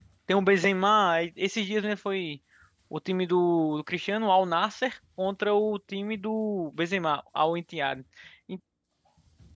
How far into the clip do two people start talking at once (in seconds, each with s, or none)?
none